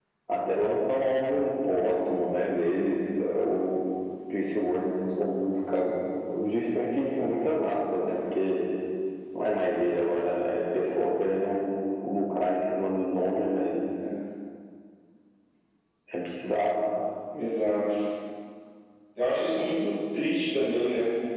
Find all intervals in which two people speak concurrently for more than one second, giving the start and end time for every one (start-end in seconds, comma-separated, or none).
none